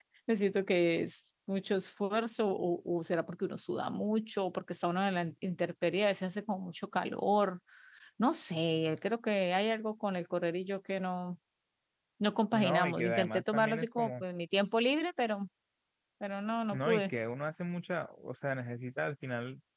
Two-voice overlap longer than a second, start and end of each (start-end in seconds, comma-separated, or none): 12.5-14.1